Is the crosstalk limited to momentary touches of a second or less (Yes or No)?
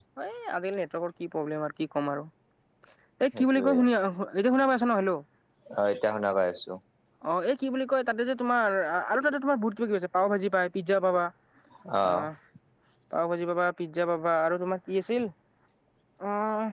Yes